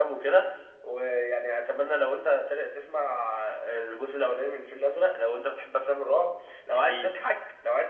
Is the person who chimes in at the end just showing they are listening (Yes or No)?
Yes